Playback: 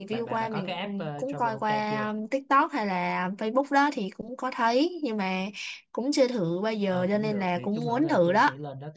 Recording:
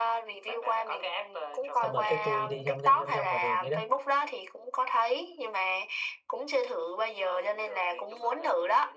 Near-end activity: present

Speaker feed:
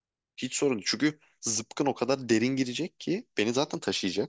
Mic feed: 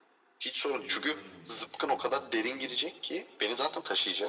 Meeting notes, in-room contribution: present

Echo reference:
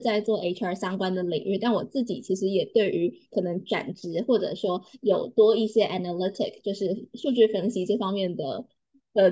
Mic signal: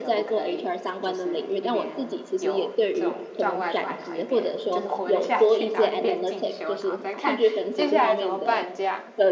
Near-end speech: present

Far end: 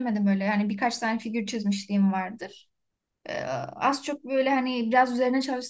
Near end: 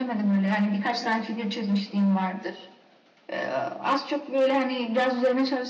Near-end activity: none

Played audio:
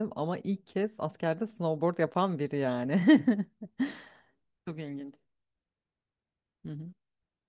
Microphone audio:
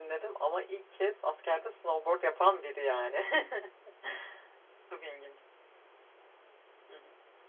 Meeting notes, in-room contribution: none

